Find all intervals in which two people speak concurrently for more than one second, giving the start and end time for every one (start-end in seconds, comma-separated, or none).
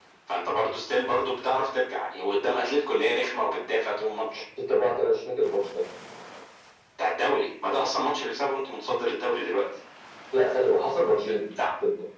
none